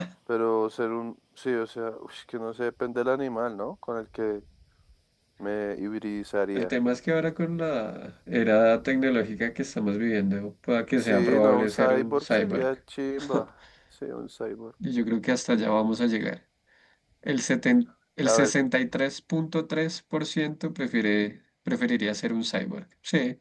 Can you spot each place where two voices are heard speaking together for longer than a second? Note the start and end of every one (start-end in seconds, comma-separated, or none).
11.0-12.7